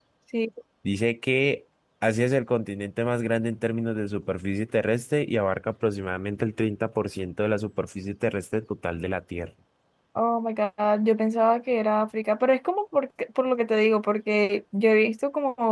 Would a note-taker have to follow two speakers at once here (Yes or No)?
No